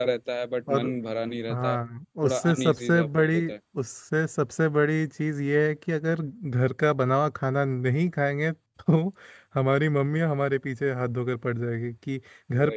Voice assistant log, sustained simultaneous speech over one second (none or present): present